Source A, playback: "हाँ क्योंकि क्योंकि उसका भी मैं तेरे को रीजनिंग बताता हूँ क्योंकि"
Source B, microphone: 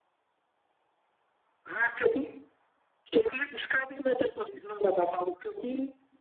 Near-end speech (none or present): none